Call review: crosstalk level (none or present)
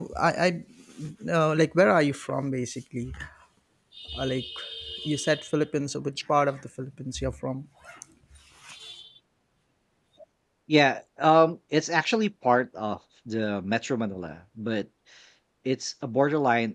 none